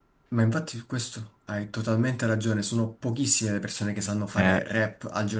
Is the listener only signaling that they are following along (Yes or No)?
Yes